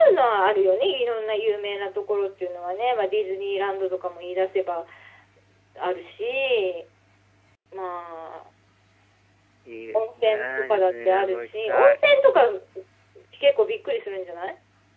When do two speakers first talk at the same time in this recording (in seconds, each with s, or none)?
9.9 s